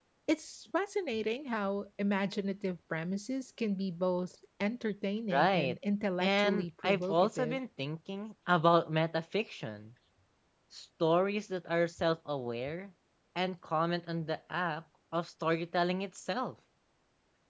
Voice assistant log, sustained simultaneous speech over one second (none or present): present